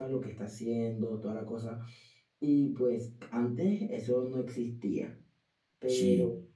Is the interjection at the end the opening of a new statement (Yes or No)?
No